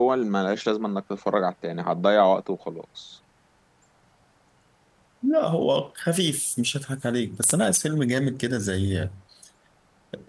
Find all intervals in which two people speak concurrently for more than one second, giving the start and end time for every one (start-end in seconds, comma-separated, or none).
none